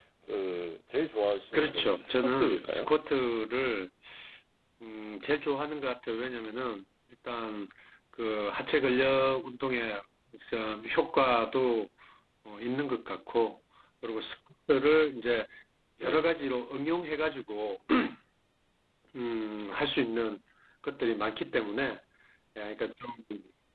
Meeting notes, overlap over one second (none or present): present